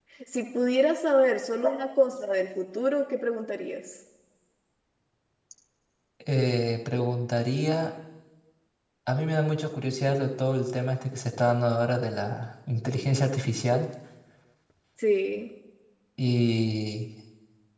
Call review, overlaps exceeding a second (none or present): none